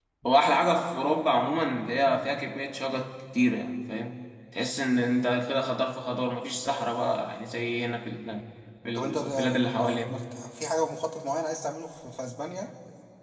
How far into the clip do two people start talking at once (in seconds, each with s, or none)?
8.9 s